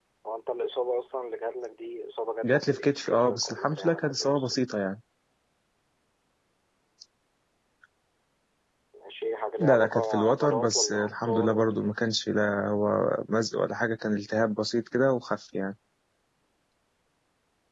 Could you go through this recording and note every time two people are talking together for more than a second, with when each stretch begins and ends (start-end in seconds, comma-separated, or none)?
2.4-4.6, 9.6-11.9